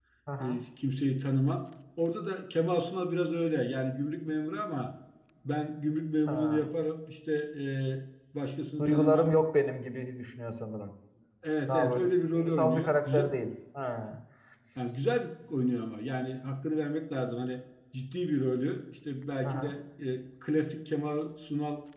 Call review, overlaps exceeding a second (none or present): present